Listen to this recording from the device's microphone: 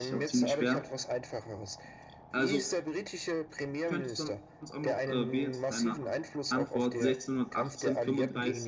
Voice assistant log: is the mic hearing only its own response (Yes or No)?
No